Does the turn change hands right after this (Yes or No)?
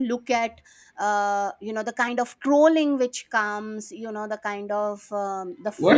Yes